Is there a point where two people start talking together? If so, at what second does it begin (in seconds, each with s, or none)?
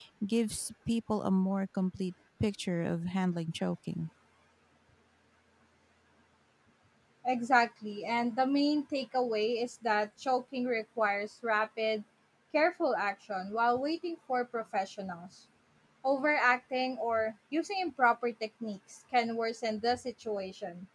none